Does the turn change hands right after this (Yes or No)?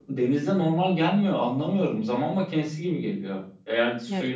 No